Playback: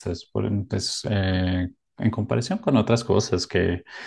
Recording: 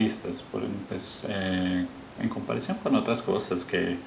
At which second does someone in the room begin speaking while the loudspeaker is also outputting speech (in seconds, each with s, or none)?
none